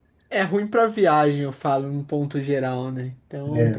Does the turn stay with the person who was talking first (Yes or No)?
Yes